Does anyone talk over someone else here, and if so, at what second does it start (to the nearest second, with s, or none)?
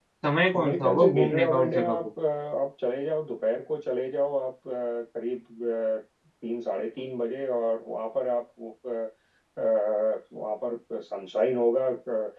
1 s